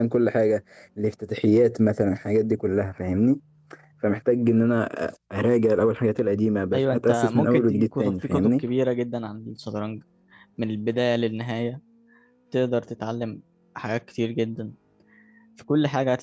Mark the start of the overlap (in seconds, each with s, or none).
6.7 s